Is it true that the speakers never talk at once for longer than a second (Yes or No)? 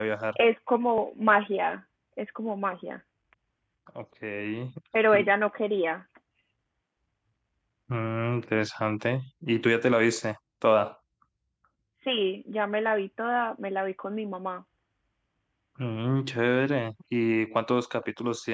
Yes